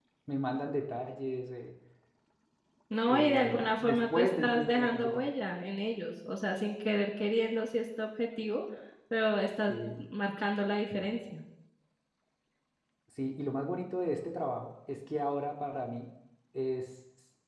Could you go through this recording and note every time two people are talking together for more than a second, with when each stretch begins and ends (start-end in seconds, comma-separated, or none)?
3.1-5.3